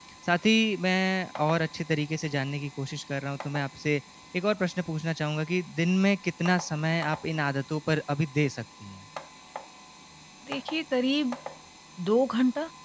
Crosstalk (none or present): none